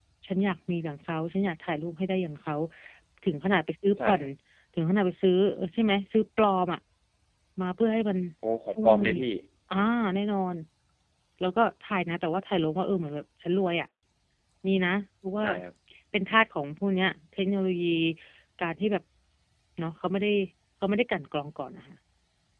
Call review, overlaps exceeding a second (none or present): none